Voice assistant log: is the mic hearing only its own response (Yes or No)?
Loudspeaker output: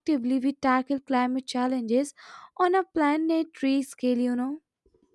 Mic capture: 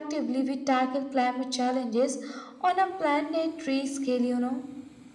Yes